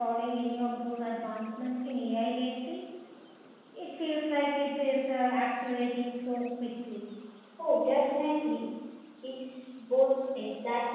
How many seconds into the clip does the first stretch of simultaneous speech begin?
none

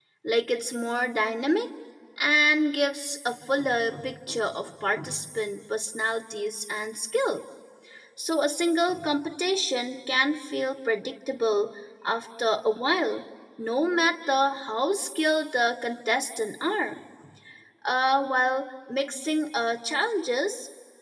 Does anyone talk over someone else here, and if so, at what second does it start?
none

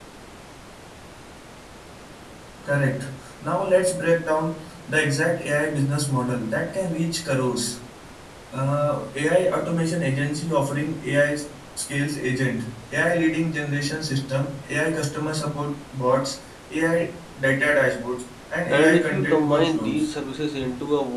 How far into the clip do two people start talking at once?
18.7 s

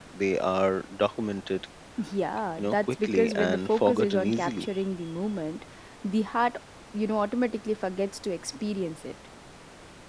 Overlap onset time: 2.6 s

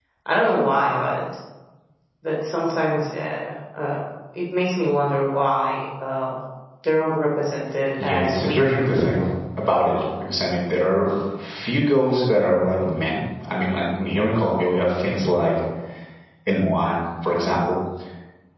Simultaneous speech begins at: 8.0 s

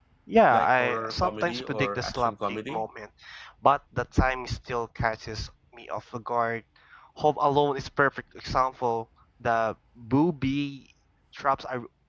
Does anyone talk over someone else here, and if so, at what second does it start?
0.5 s

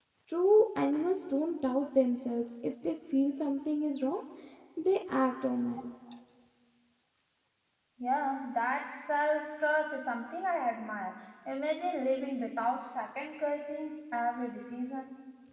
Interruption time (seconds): none

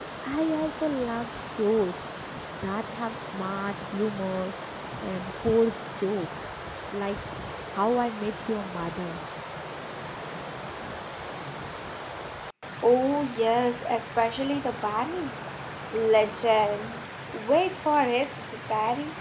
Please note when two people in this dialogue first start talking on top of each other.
none

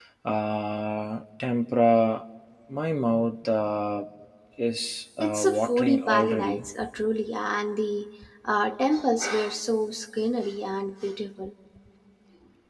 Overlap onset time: 5.2 s

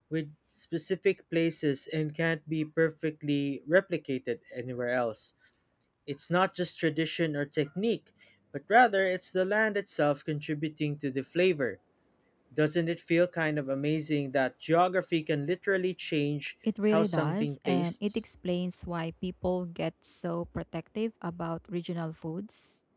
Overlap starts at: 16.9 s

